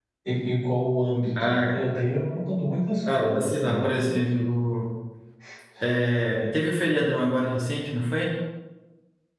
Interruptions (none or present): present